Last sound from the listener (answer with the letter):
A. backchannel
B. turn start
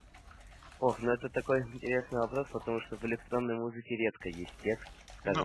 A